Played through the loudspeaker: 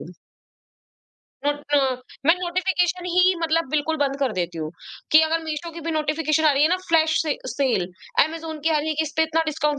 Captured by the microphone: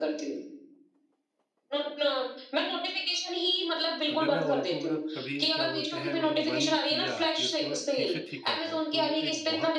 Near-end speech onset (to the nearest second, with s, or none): 4 s